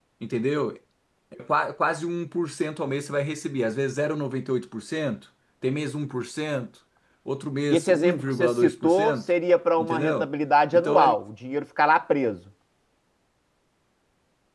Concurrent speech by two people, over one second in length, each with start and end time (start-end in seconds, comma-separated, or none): 7.7-9.2